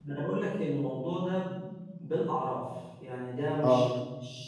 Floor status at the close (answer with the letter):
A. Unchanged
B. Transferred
A